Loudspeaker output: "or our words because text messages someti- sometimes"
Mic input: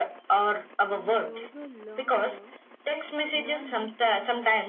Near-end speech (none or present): present